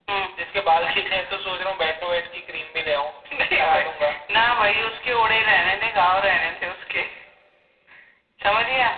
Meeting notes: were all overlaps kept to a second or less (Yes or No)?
Yes